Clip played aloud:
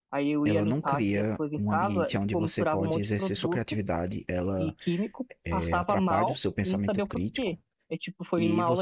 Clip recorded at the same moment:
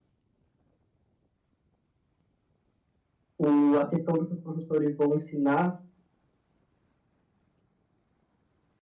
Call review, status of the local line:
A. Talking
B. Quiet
A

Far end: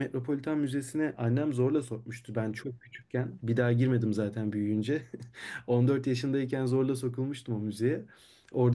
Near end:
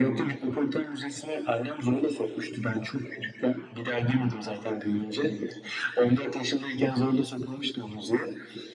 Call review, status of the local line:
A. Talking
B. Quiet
B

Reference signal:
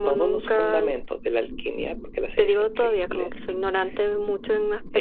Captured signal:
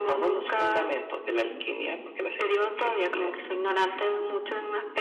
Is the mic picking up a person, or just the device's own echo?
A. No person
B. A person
A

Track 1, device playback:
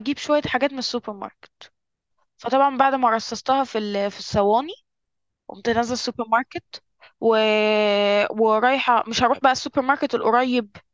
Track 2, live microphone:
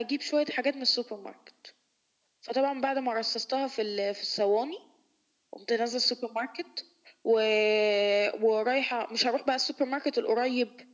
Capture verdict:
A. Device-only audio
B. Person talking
A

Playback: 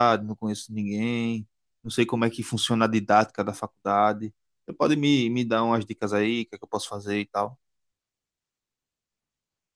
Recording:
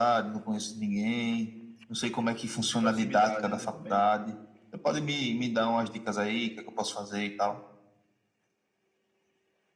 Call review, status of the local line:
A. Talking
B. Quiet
A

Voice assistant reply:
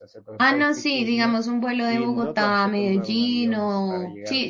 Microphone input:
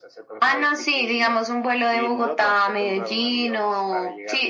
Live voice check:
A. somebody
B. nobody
B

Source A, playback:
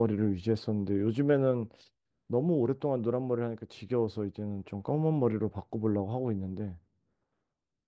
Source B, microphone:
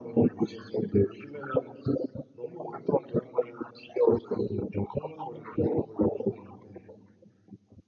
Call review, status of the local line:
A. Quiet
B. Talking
A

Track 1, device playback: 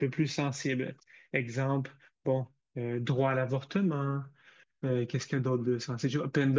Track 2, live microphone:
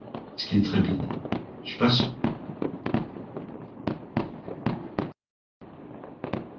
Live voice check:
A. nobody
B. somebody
B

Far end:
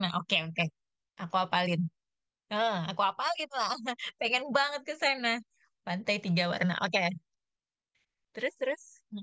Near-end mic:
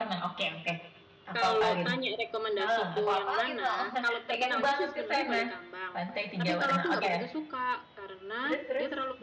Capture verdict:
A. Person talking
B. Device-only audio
A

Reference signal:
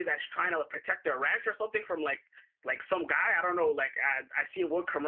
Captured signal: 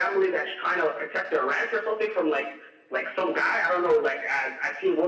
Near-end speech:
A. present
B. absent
B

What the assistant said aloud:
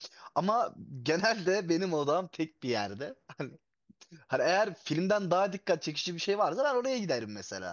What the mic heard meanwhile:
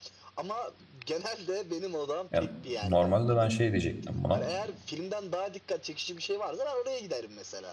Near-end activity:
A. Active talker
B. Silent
A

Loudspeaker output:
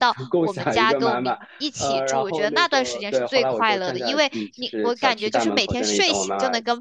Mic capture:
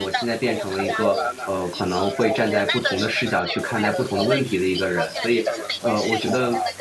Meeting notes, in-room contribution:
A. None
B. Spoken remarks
B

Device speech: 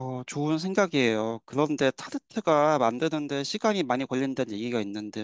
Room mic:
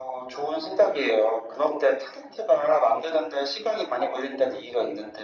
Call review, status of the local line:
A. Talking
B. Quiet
B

